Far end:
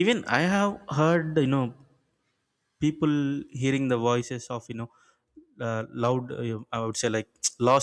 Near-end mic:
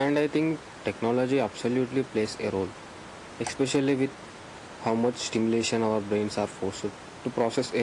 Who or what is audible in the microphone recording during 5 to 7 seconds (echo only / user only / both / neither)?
user only